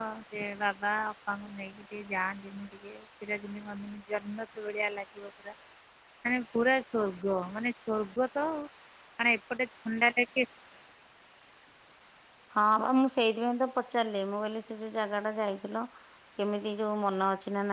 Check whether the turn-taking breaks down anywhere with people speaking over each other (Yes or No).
No